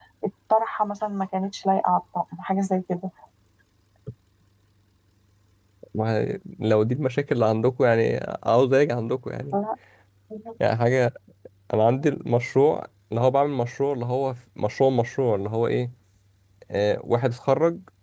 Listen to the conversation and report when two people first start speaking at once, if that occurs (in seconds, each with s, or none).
none